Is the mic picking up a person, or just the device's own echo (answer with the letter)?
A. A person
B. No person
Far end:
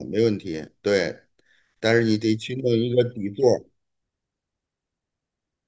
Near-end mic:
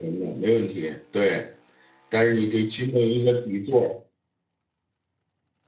B